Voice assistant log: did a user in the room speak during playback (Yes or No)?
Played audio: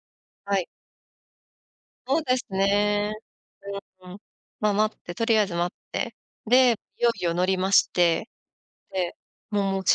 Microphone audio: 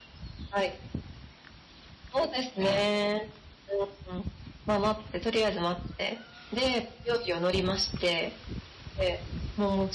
No